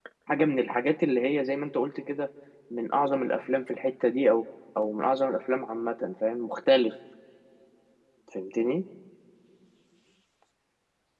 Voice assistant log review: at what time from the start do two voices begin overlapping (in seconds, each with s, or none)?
none